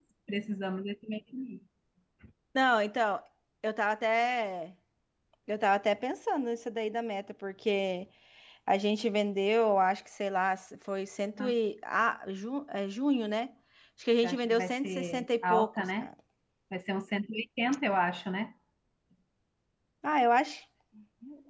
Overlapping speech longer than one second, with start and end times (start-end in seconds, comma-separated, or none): 14.2-16.1